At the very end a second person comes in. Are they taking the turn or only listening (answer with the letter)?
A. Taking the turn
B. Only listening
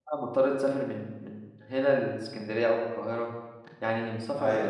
A